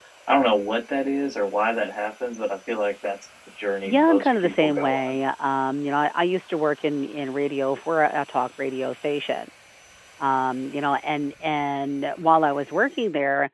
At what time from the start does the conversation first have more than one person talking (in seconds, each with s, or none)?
3.9 s